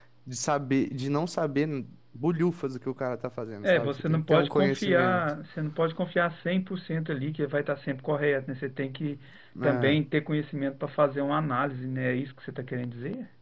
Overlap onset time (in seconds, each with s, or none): 3.6 s